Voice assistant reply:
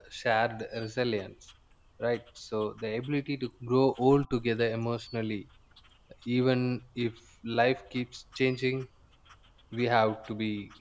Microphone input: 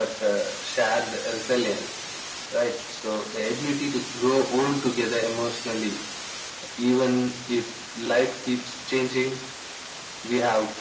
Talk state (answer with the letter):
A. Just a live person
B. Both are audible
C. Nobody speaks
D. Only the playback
D